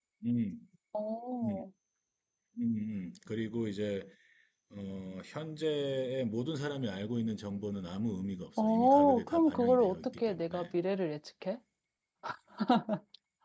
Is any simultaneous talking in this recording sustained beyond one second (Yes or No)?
Yes